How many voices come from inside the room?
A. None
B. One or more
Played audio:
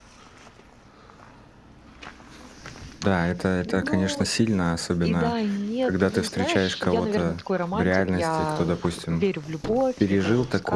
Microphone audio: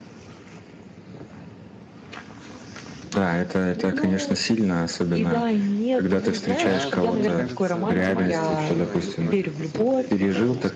B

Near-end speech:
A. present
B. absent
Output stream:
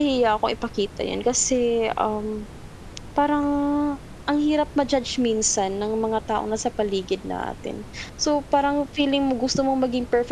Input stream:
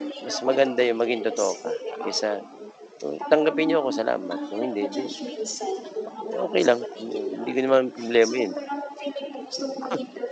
A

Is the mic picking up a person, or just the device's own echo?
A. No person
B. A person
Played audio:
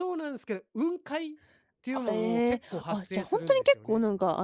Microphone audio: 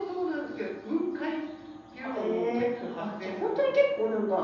A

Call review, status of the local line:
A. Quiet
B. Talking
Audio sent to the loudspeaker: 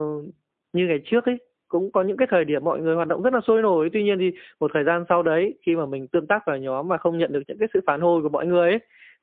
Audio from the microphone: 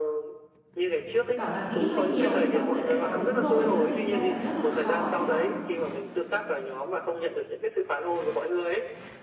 B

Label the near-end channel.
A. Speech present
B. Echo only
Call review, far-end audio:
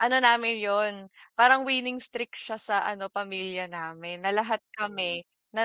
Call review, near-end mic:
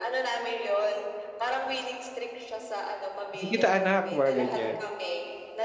A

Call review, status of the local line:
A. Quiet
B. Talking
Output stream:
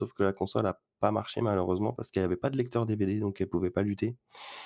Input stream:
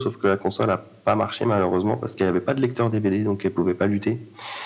A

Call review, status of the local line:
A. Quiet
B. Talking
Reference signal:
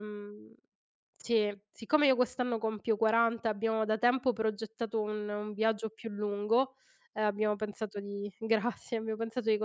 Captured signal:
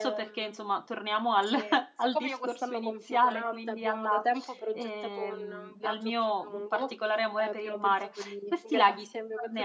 B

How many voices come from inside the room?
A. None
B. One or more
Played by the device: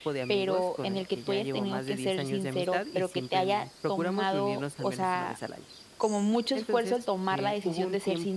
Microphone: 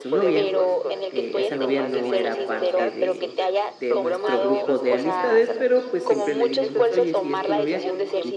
B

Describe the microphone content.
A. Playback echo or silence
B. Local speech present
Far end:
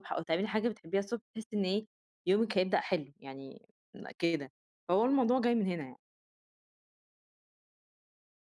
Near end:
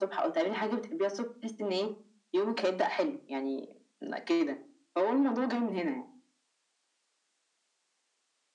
A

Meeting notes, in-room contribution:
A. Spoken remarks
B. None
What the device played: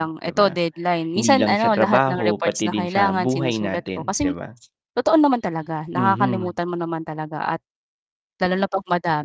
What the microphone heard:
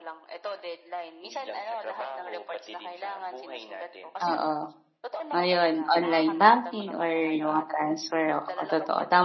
A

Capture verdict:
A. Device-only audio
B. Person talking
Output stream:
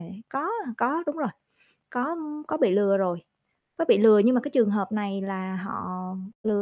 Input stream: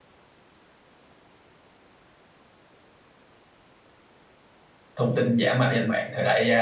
B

